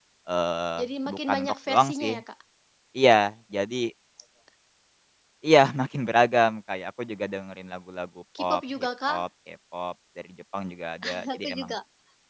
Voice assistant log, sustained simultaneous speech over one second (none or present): present